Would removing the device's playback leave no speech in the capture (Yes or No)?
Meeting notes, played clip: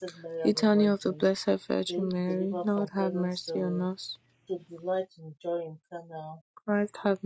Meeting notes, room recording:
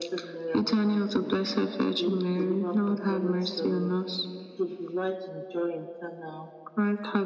Yes